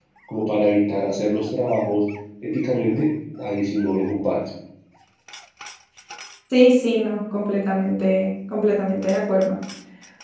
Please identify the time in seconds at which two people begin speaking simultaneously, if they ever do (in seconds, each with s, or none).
none